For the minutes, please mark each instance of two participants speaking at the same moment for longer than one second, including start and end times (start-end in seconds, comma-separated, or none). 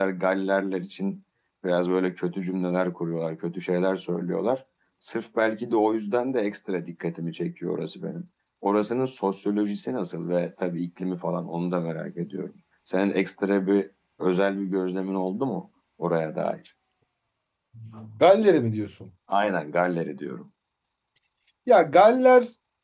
none